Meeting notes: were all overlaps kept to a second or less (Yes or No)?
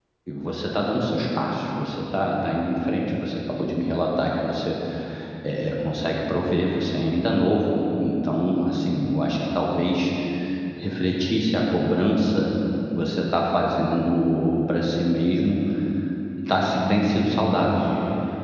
No